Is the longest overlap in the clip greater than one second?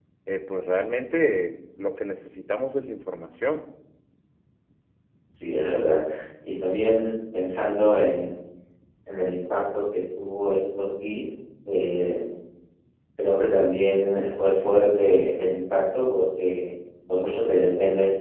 No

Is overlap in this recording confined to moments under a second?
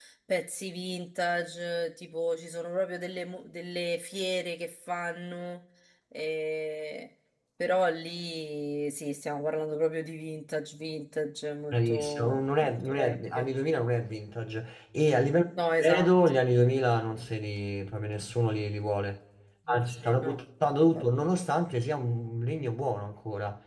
No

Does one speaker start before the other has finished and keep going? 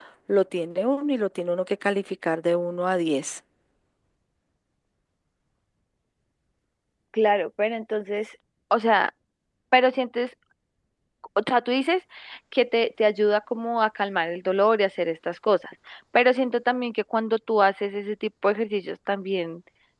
No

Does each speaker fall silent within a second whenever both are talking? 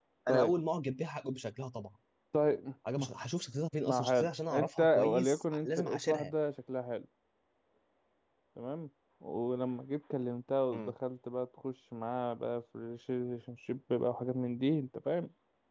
No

